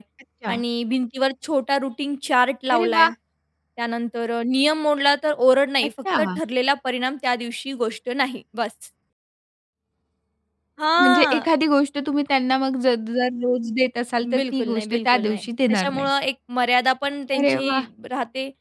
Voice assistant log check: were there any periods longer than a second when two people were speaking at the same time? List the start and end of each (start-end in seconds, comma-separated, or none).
14.4-16.1